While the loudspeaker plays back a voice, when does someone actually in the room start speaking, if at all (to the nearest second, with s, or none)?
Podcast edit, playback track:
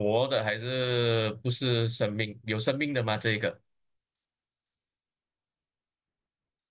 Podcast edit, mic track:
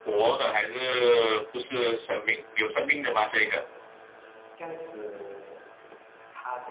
3 s